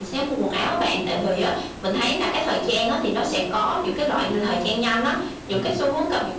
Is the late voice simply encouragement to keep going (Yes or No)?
Yes